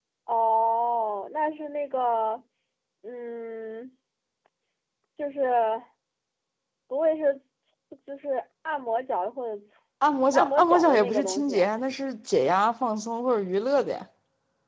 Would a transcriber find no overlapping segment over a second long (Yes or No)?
No